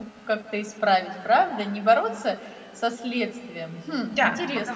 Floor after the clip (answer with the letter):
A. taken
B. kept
A